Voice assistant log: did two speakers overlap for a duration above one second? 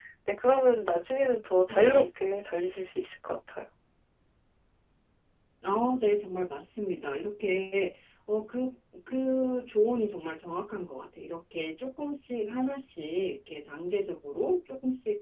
No

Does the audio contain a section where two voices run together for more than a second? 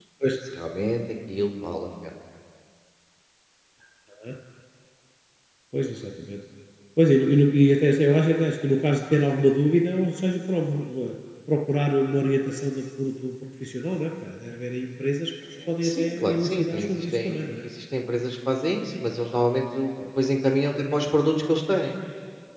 Yes, from 15.6 s

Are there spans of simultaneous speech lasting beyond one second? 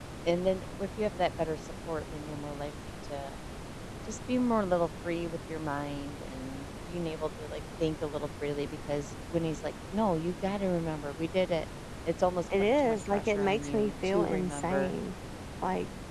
Yes, from 12.6 s

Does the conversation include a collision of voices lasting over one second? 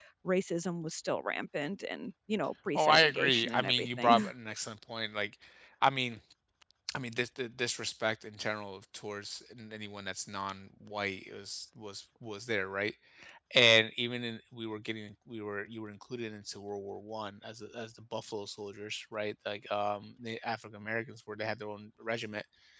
Yes, from 2.8 s

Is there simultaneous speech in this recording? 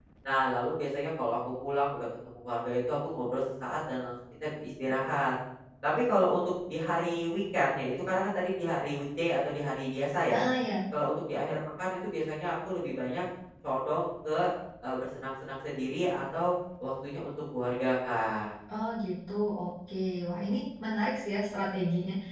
No

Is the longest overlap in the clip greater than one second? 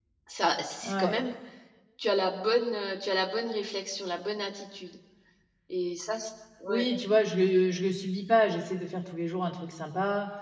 No

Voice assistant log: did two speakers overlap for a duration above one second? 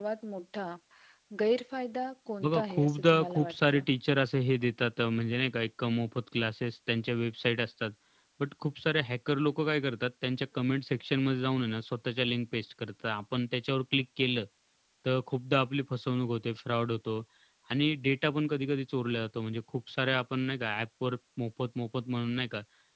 Yes, from 2.4 s

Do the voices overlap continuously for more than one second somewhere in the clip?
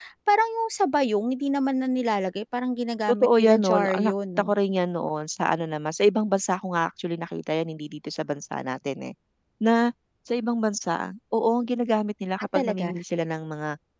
Yes, from 3.1 s

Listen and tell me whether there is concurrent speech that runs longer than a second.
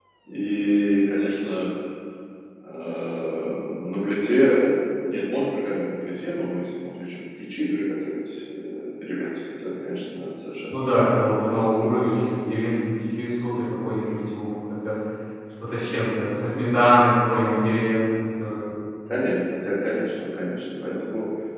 Yes, from 10.7 s

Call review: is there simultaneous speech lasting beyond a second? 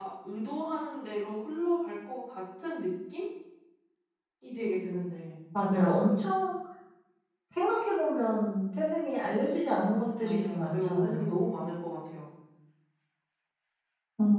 Yes, from 10.2 s

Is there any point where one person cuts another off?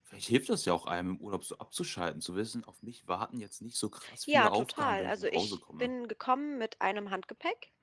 Yes, from 4.3 s

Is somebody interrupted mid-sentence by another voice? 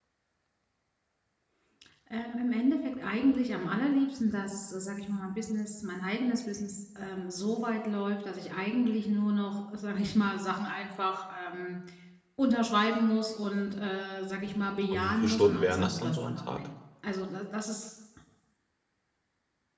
Yes, from 14.9 s

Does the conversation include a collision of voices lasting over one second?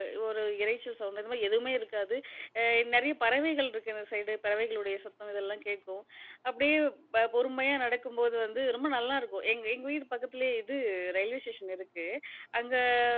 No

